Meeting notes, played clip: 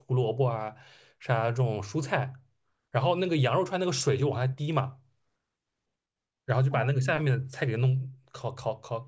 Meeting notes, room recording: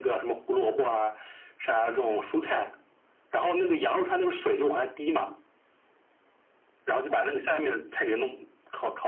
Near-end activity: none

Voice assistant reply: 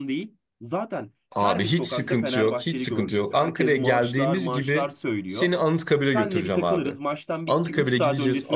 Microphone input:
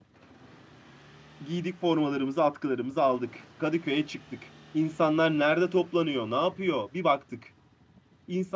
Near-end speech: present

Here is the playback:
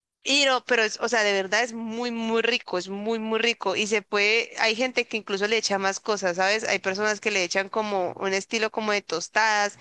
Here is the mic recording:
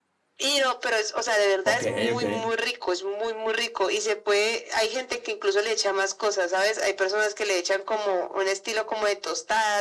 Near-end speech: present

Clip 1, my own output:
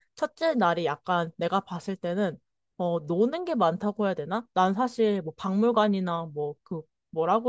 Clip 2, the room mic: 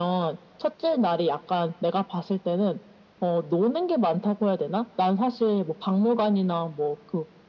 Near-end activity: none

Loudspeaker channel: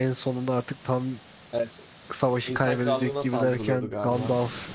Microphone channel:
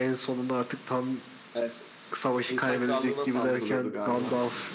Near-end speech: none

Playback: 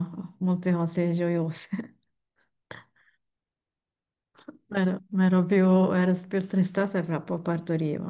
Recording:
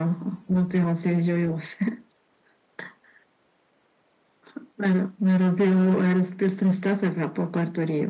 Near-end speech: none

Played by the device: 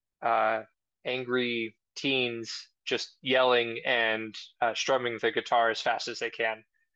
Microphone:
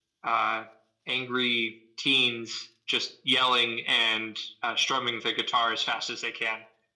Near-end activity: none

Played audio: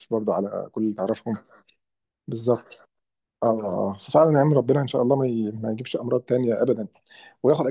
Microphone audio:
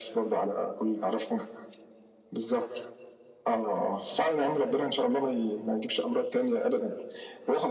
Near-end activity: none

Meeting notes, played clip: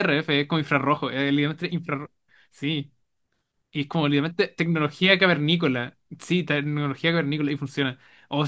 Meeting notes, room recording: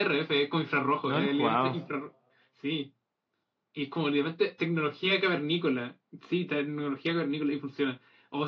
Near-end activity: present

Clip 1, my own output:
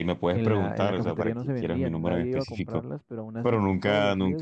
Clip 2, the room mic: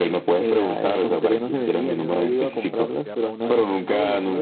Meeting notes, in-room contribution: present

